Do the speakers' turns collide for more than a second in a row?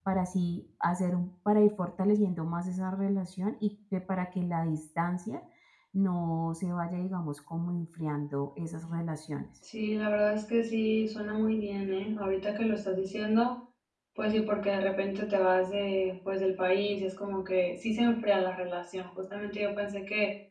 No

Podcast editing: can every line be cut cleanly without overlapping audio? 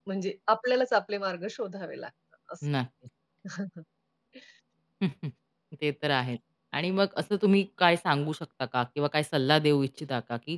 Yes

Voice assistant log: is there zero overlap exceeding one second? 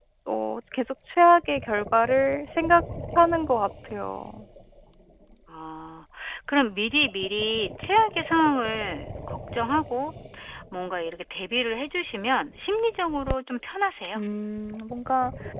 Yes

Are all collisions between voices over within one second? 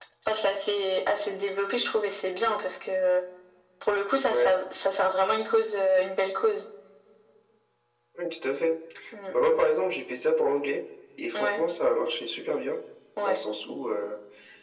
Yes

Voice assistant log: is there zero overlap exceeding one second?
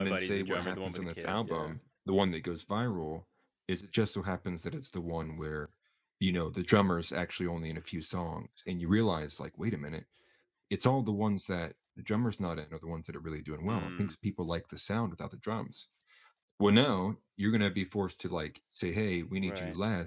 No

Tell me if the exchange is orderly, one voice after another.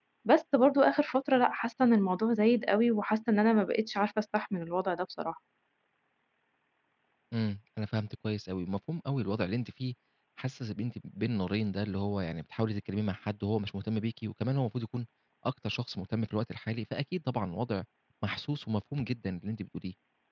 Yes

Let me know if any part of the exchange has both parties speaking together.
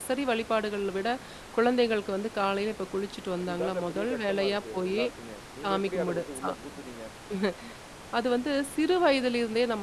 Yes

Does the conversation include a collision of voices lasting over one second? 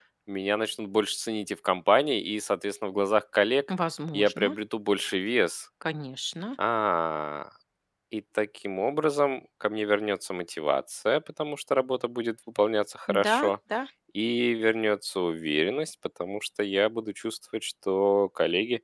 No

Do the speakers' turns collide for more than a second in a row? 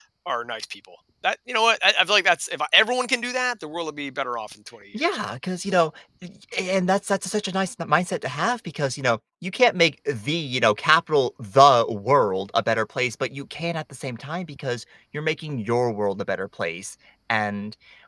No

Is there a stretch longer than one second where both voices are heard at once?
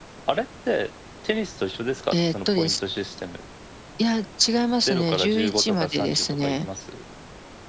Yes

